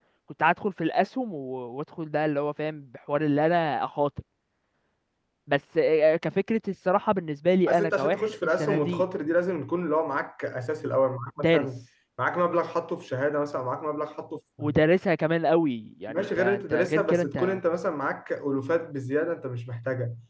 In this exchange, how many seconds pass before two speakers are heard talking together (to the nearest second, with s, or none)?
8 s